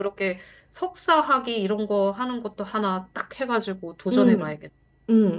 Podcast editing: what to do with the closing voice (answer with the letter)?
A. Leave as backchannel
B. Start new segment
B